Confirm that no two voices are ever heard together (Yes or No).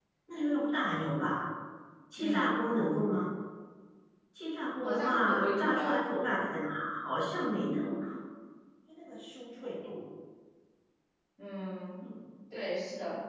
No